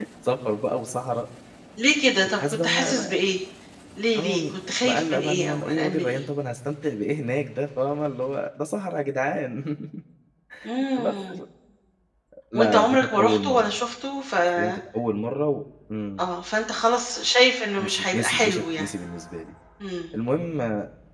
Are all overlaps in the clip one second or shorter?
No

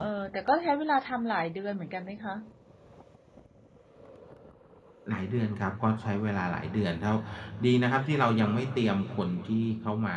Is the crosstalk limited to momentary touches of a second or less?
Yes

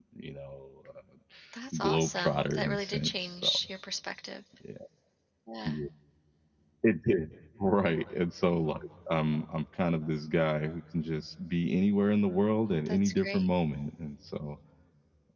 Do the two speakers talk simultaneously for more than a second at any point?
Yes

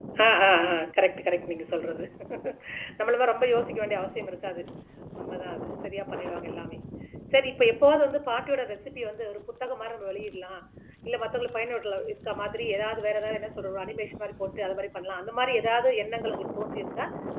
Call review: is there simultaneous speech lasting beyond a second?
No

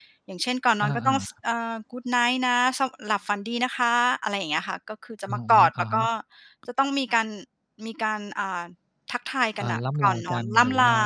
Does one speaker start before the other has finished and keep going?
Yes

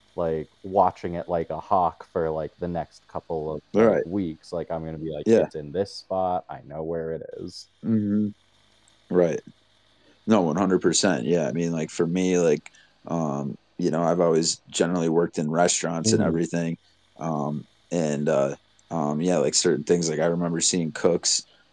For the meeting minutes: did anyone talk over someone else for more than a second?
No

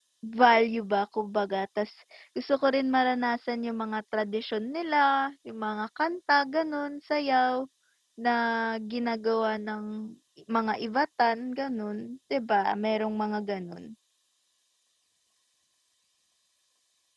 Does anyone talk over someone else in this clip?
No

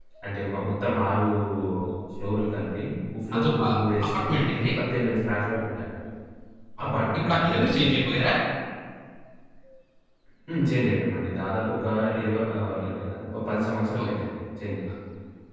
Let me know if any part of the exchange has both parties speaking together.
Yes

